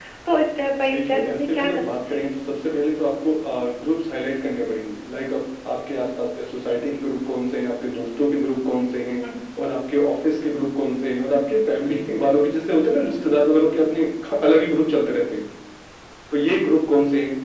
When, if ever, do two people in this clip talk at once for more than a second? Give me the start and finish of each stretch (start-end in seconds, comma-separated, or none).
0.9-2.2